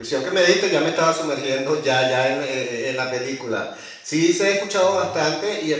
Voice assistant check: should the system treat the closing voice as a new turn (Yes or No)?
No